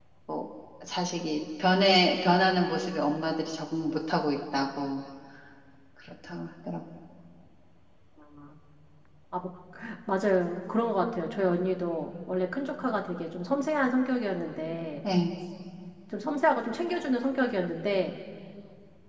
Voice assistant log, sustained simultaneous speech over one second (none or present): none